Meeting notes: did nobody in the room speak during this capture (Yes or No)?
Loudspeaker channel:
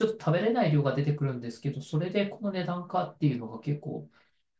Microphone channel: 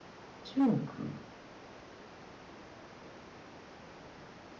No